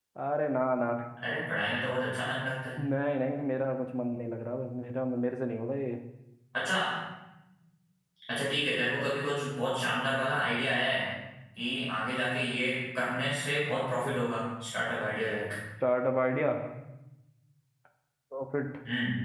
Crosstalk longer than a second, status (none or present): none